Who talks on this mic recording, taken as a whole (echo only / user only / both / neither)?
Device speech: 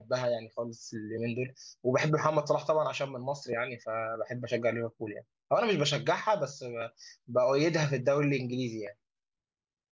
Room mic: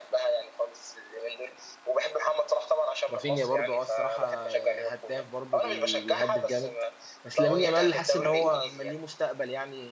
both